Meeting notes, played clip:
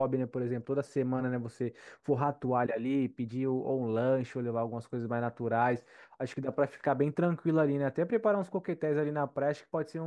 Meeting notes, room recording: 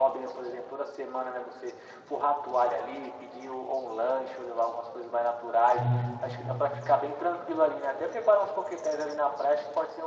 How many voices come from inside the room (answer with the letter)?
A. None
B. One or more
B